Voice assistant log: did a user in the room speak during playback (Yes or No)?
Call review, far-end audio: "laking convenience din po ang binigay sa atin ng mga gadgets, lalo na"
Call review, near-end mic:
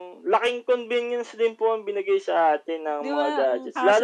Yes